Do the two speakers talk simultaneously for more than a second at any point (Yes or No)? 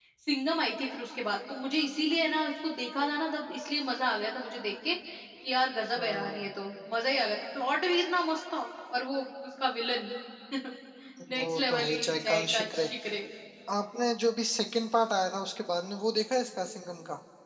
Yes